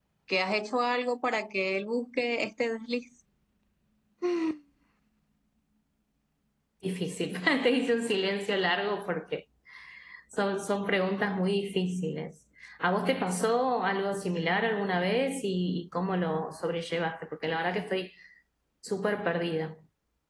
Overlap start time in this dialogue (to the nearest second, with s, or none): none